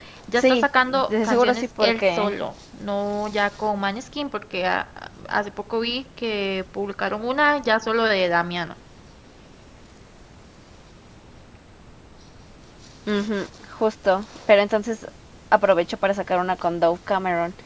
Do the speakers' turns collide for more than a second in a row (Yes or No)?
Yes